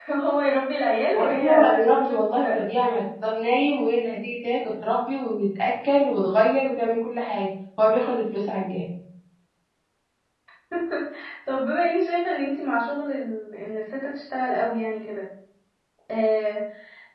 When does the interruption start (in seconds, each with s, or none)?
1.2 s